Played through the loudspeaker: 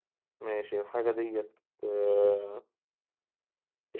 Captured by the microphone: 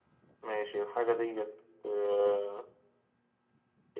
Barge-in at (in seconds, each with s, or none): none